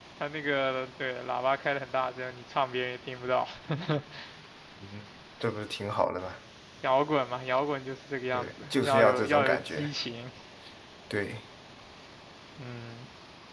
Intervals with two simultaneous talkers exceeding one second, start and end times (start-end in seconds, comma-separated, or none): 8.3-9.9